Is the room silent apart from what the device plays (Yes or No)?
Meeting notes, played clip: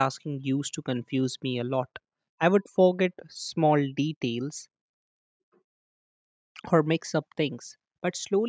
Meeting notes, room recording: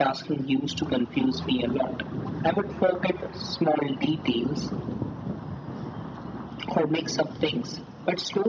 Yes